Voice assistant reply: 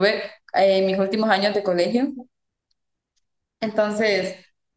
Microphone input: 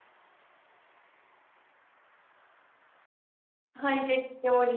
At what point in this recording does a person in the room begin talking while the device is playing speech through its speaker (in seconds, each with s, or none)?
3.7 s